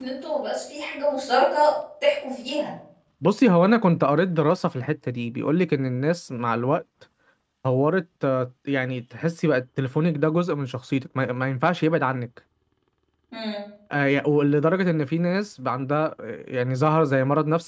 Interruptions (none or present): none